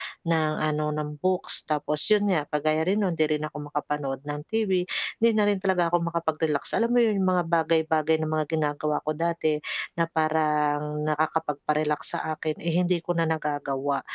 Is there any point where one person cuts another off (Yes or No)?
No